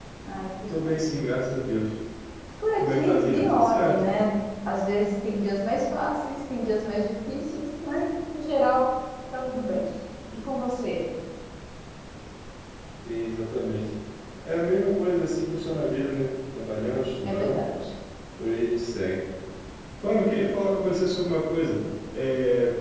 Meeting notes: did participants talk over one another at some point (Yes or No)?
Yes